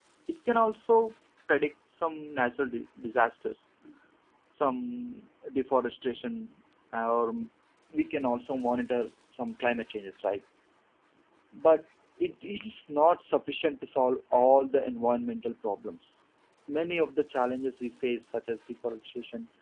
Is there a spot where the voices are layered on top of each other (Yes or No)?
No